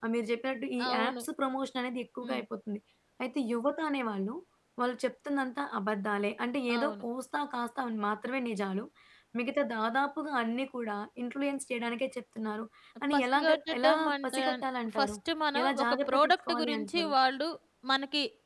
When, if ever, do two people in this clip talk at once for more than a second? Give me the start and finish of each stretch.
13.1-14.4, 15.6-17.1

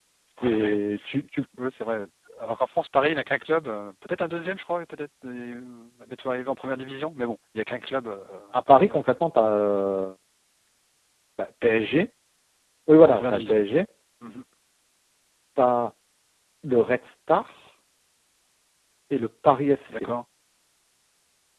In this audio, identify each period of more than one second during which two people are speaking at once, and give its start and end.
none

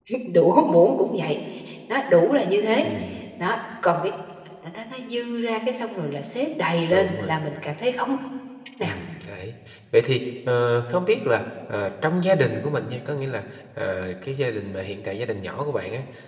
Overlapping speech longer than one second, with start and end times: none

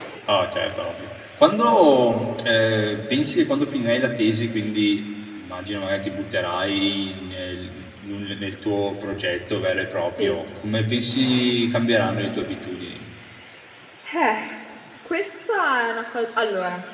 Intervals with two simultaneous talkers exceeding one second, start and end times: none

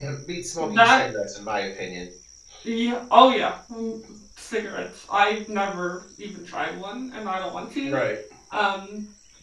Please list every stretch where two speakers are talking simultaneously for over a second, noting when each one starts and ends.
none

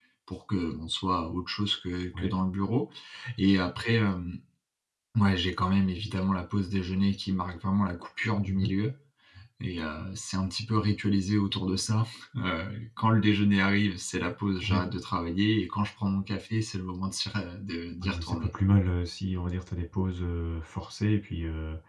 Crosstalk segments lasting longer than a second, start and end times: none

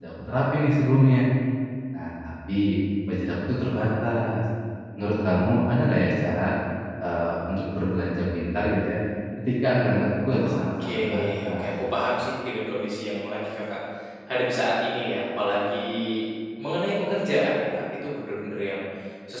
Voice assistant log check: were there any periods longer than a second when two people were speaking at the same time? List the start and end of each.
10.4-11.7

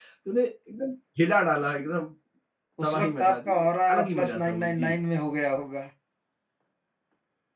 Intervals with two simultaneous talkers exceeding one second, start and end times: 2.8-4.9

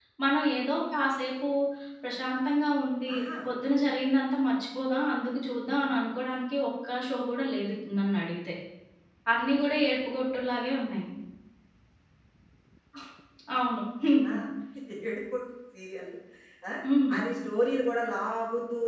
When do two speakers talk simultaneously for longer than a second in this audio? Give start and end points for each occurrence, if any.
none

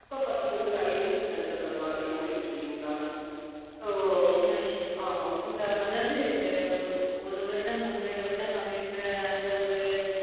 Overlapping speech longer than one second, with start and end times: none

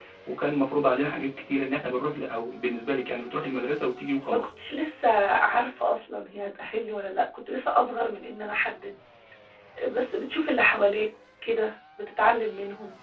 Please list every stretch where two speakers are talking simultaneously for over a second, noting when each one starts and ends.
none

